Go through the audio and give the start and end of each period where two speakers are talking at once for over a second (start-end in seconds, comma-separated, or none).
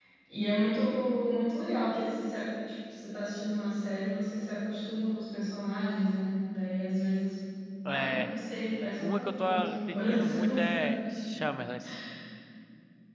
9.0-10.9